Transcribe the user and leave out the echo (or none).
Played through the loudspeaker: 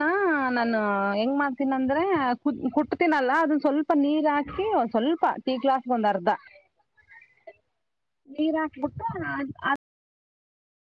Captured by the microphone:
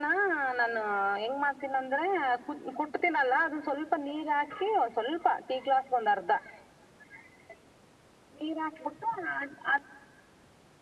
none